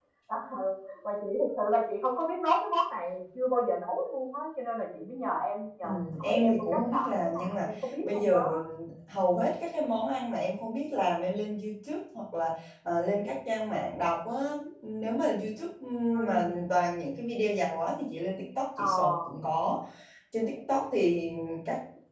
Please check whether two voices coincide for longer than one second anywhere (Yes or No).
Yes